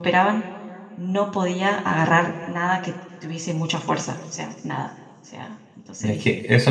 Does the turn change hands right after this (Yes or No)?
Yes